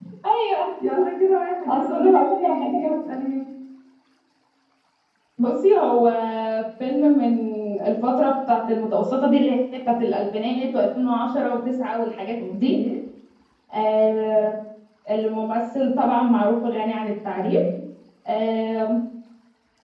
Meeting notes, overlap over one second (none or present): present